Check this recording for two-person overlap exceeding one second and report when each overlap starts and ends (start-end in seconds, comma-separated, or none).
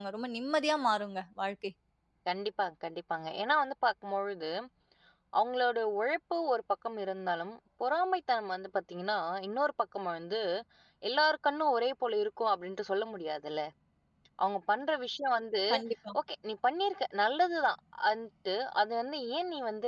none